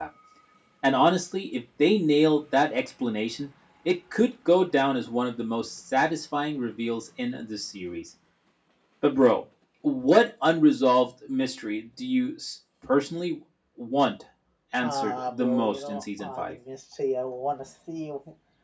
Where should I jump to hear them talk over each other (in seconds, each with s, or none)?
14.8 s